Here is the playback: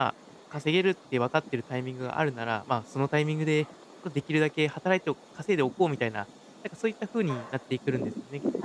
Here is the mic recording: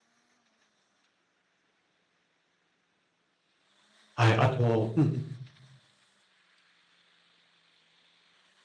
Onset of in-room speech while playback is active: 4.1 s

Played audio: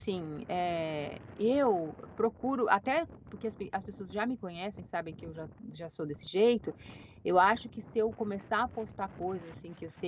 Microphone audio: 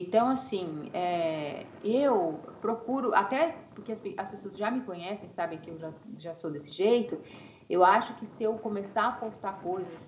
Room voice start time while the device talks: none

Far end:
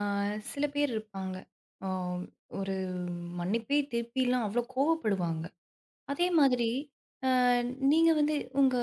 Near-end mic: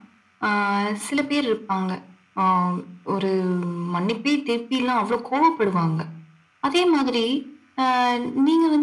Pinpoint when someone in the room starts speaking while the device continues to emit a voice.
none

